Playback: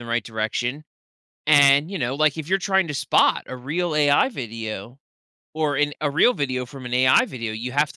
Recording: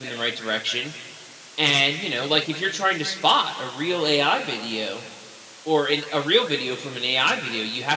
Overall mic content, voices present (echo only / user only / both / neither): echo only